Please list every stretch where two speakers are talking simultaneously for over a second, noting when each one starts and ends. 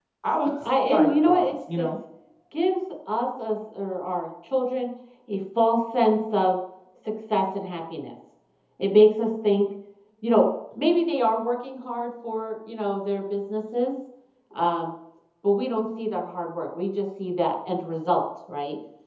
0.6-1.9

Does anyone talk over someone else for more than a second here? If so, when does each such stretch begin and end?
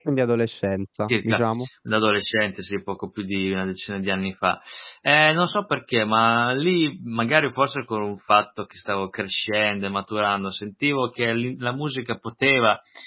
none

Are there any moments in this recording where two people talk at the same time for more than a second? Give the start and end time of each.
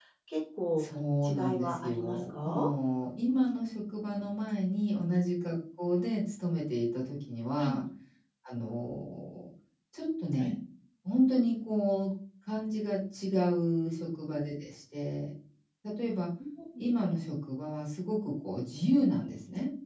1.2-2.7

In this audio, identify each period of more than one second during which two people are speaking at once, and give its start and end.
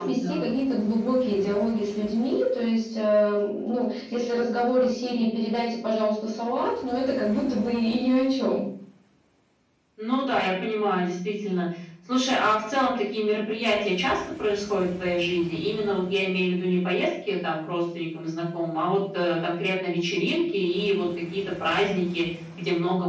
none

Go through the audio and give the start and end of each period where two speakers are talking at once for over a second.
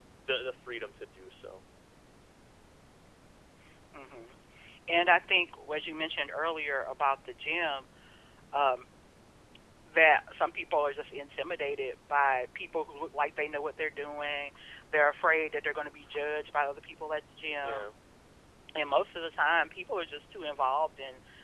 none

